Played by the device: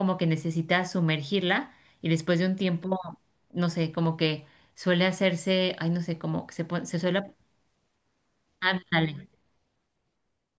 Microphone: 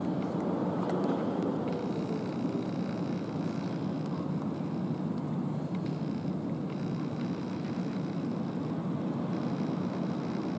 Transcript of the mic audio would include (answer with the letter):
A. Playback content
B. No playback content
B